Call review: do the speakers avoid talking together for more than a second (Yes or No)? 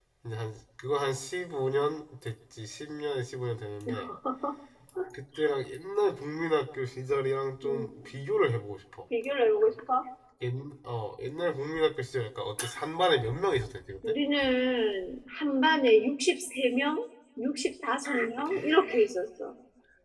Yes